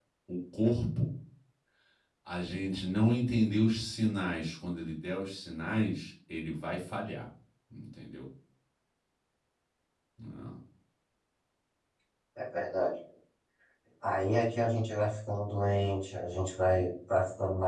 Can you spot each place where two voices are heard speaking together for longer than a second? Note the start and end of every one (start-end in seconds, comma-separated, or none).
none